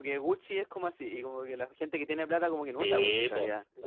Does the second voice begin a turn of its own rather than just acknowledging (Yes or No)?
Yes